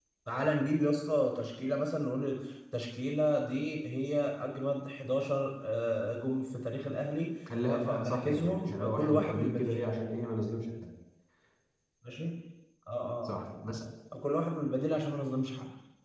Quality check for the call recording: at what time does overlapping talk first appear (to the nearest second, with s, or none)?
8 s